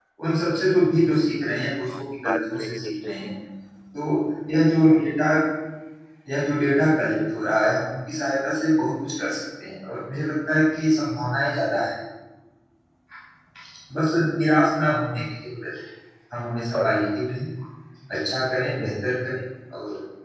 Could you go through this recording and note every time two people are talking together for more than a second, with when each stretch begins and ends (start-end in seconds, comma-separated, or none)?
1.8-3.3